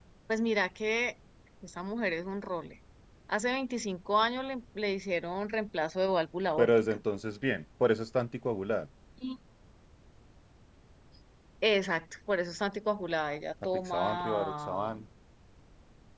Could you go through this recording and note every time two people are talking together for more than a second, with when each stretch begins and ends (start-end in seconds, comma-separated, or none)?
13.7-14.9